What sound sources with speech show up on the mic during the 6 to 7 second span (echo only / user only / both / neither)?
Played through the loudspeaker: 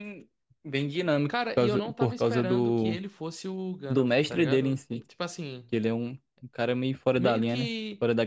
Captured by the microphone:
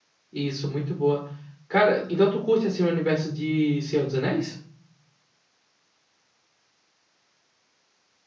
neither